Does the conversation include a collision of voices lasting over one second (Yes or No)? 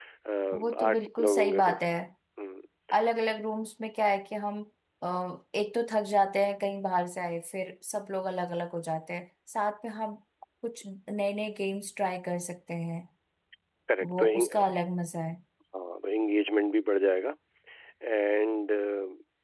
Yes